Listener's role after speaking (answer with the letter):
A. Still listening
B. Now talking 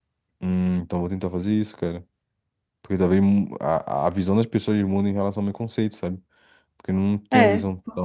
B